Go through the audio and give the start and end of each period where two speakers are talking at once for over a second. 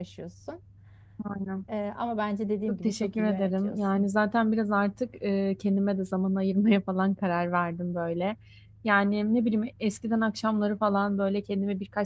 2.7-4.1

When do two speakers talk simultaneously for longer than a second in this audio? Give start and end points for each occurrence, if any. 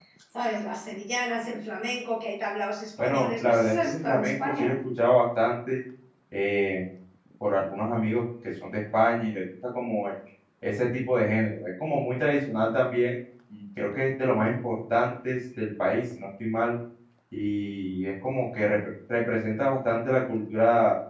3.0-4.7

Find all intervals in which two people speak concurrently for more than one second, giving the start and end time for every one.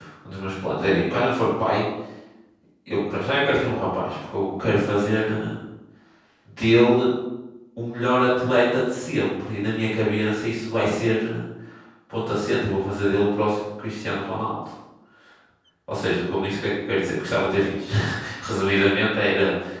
none

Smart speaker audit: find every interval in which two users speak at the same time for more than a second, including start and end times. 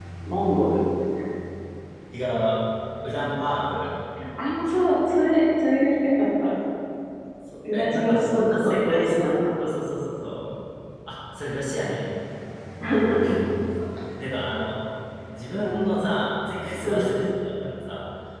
7.7-9.1

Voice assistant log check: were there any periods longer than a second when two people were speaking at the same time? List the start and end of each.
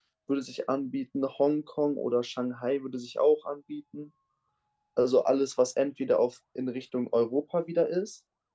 none

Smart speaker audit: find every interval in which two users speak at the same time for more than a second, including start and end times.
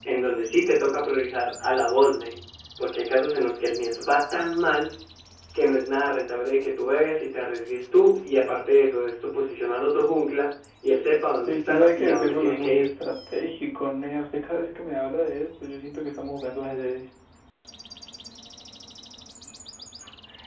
11.5-12.9

